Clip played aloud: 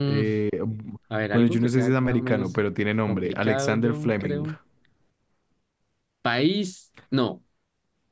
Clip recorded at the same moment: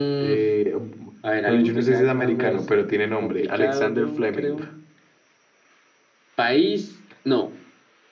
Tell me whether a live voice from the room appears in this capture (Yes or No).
No